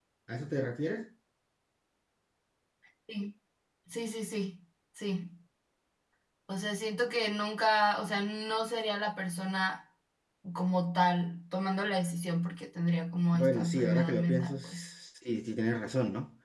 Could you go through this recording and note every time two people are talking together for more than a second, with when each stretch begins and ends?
13.3-14.9

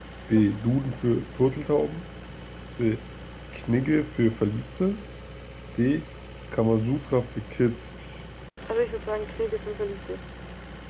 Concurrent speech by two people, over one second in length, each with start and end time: none

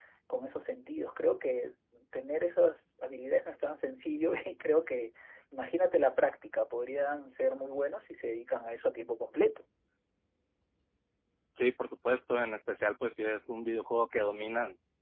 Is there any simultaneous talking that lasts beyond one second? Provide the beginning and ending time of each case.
none

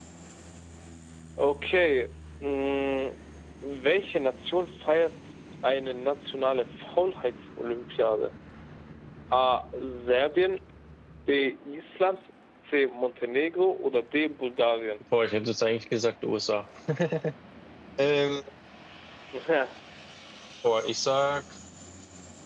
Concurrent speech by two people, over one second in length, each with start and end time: none

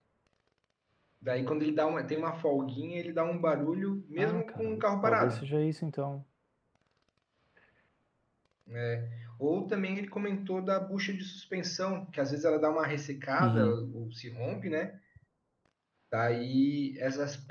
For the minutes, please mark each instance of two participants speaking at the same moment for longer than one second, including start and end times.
4.2-5.5

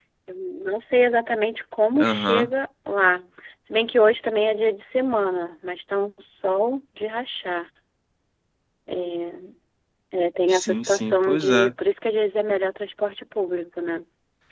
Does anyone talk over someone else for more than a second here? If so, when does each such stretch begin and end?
10.5-11.7

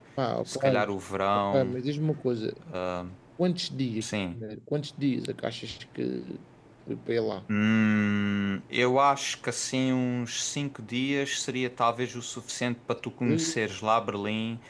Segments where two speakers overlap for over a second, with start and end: none

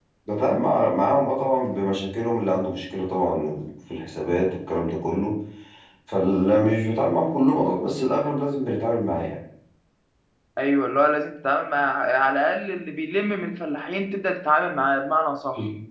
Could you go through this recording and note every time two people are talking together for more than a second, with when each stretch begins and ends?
none

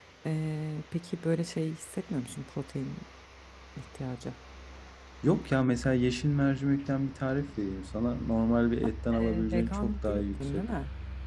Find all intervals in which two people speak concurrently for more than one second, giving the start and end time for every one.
9.1-10.7

